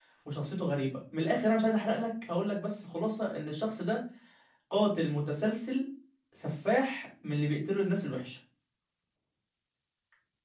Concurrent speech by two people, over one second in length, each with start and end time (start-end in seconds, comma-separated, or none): none